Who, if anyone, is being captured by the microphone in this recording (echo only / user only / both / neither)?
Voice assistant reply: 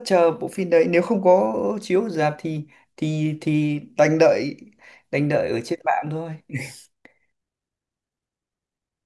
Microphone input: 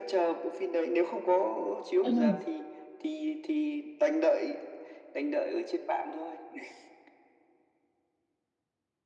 both